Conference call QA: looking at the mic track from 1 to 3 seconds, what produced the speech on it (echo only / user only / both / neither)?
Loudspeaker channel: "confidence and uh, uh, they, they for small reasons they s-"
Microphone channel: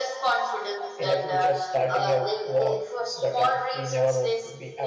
both